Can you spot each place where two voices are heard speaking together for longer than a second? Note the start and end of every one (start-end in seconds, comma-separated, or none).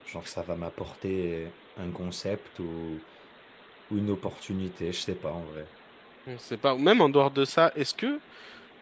none